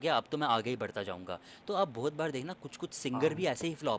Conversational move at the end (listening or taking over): listening